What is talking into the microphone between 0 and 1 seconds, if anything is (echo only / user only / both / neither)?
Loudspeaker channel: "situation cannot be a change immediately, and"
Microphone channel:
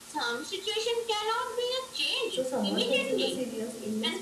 echo only